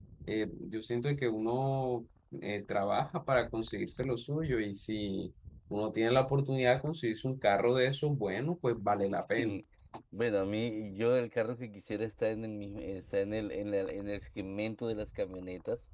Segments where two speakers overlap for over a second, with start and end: none

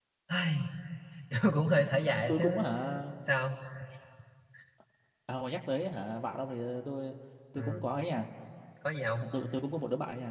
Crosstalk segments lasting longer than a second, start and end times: none

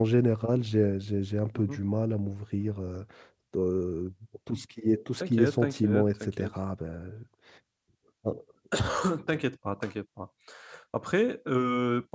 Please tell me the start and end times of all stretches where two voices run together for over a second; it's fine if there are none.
5.2-6.5

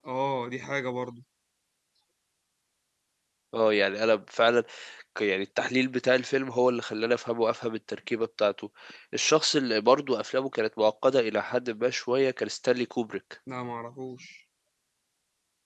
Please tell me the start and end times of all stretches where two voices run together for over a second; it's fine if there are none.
none

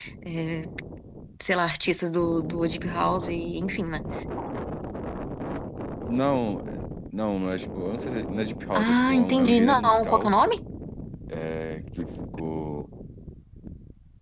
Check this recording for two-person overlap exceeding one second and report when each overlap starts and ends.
8.7-10.3

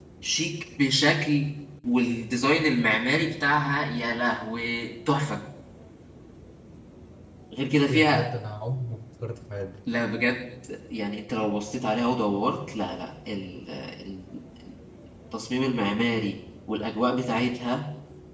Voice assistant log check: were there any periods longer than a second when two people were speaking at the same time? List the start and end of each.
none

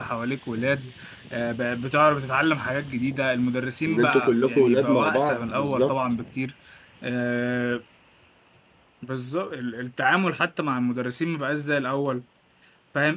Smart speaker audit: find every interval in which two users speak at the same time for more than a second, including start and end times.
3.9-5.9

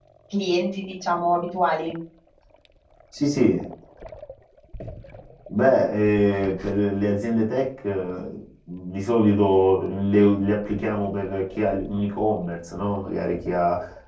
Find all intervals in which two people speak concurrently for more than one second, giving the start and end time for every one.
none

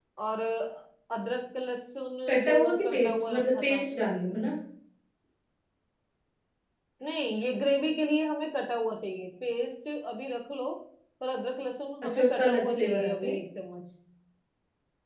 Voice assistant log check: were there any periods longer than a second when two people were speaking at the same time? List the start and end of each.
2.3-3.8, 12.0-13.3

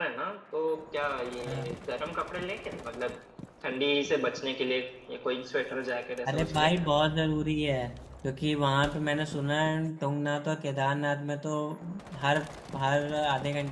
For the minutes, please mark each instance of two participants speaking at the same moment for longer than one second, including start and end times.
none

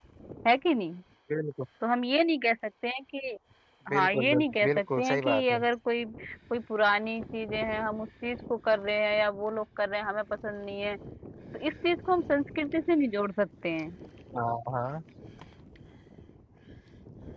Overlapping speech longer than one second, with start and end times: 3.9-5.6

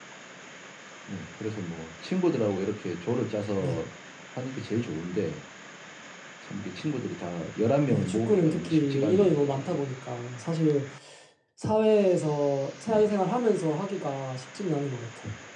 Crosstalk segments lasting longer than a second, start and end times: 7.9-9.8

